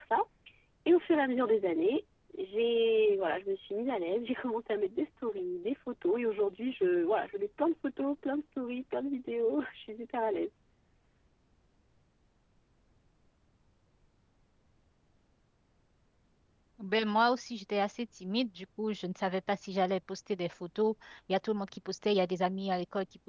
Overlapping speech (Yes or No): No